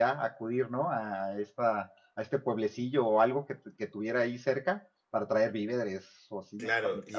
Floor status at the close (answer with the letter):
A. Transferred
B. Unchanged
A